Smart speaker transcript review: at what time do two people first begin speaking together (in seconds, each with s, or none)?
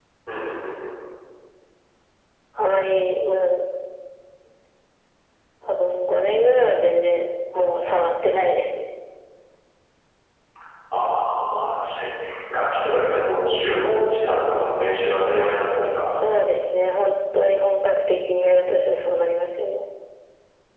none